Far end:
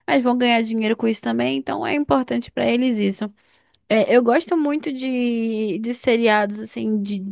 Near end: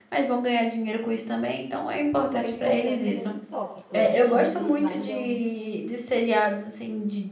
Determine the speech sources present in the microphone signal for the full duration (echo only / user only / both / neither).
both